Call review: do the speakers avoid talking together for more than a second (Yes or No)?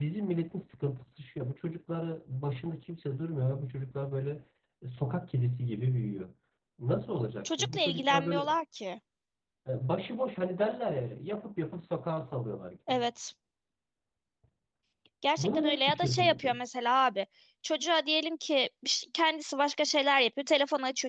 No